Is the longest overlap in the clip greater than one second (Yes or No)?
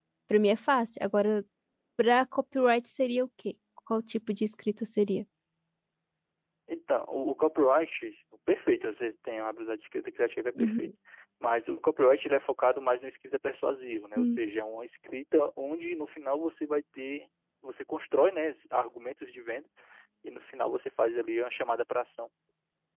No